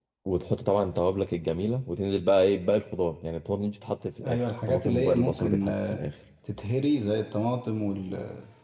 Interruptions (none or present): present